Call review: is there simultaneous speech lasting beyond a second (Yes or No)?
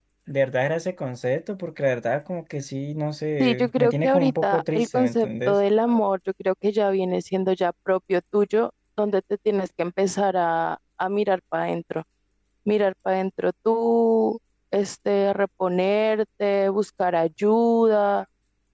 Yes